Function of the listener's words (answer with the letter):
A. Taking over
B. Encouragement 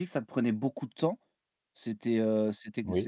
B